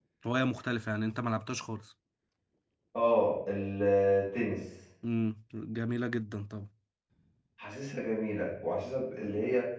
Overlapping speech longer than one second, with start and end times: none

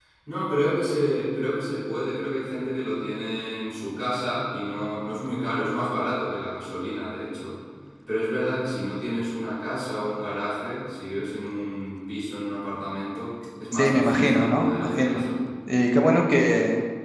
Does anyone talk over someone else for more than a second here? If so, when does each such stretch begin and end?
13.7-15.3

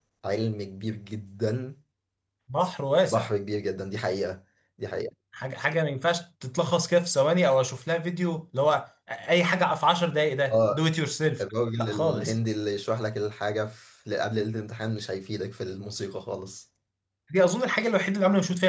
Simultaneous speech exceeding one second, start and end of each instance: none

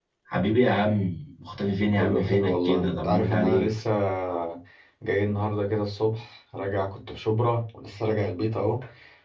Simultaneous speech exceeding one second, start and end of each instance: 1.9-3.7

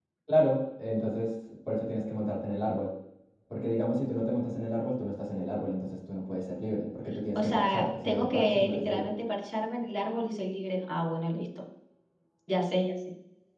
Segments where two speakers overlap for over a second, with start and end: 7.3-9.1

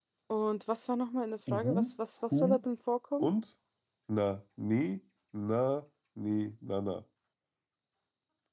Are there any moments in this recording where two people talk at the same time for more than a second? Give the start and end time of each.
none

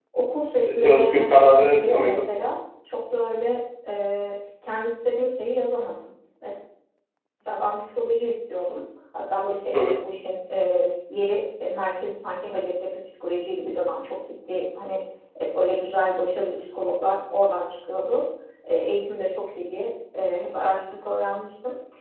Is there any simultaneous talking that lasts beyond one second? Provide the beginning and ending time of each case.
0.8-2.3

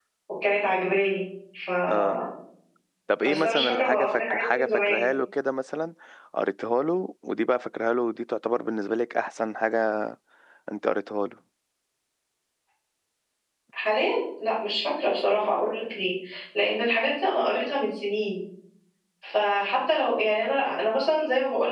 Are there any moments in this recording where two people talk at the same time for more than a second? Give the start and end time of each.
3.2-5.1

